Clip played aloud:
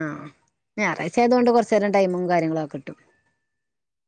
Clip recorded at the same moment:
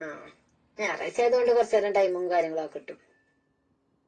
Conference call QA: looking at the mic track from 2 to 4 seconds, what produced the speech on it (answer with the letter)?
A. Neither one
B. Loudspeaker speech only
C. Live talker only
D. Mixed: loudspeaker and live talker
B